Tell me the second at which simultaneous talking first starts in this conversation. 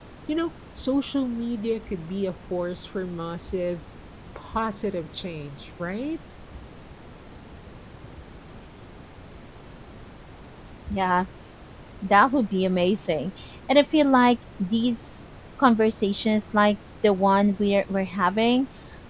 none

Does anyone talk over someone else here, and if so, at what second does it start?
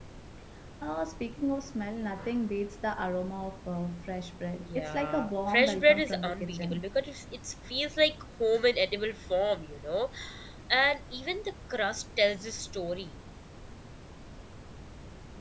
4.6 s

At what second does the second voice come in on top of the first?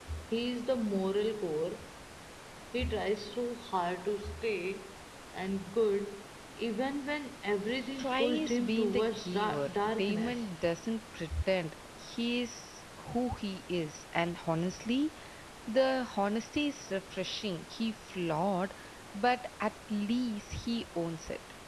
8.0 s

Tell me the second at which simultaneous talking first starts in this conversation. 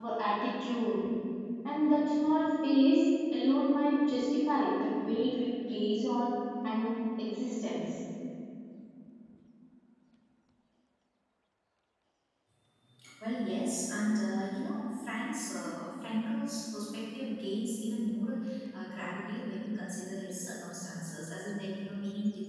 none

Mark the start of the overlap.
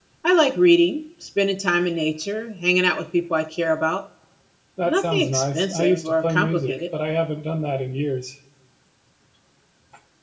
4.8 s

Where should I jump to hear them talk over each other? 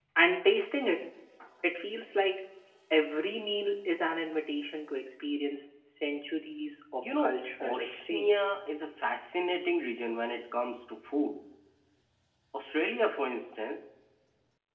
7.0 s

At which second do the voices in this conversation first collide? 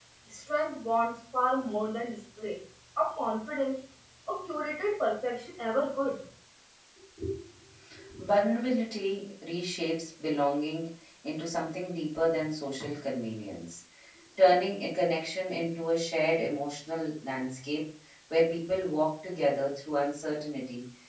none

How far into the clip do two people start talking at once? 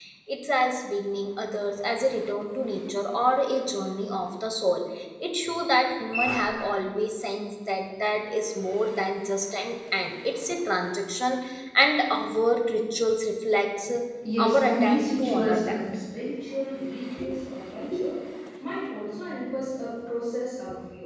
14.4 s

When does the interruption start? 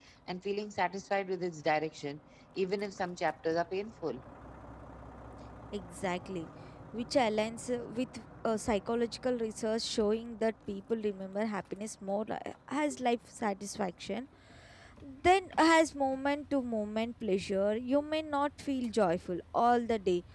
none

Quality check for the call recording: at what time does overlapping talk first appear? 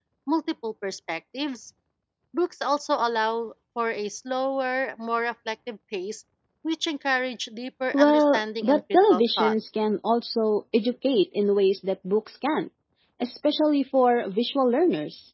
7.9 s

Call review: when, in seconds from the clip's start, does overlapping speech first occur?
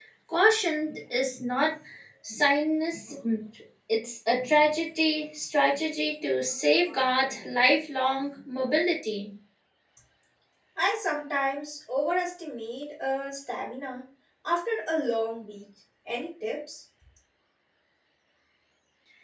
none

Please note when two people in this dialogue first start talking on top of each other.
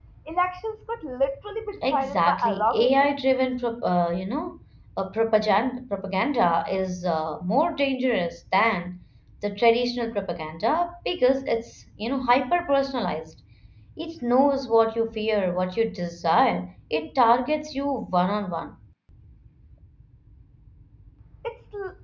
1.8 s

